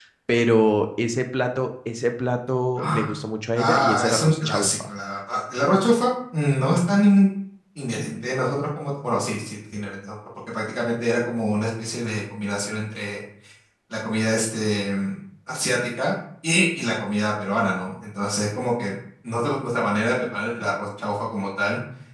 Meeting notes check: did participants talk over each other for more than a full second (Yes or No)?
Yes